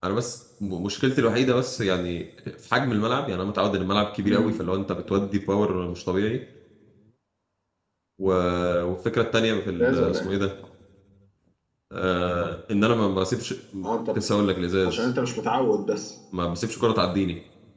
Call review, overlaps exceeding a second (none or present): none